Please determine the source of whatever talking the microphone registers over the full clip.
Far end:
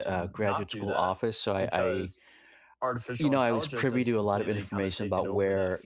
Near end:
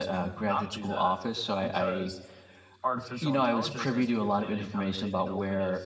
echo only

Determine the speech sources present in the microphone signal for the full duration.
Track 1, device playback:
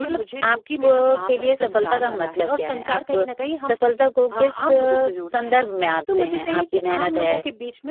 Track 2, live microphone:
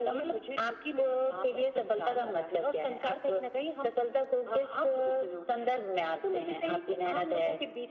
echo only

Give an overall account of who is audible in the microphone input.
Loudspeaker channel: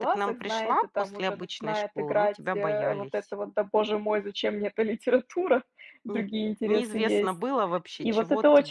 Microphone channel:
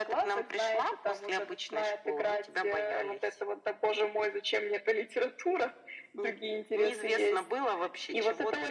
echo only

